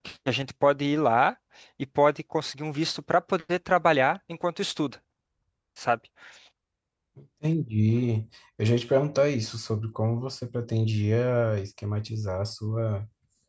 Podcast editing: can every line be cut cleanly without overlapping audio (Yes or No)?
Yes